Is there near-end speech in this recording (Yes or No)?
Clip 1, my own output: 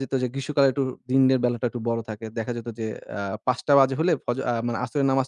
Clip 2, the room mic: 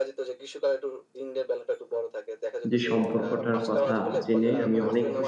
Yes